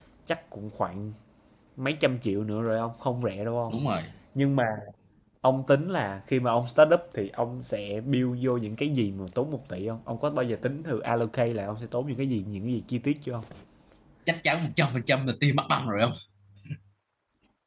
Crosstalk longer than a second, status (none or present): none